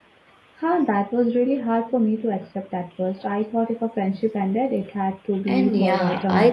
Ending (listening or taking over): taking over